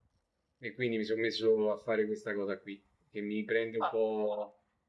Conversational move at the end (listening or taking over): listening